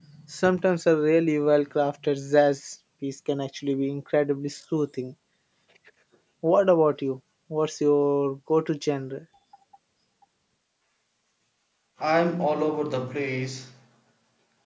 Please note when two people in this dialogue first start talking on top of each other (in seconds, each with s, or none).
none